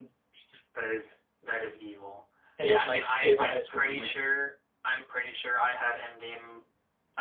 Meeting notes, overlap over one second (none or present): present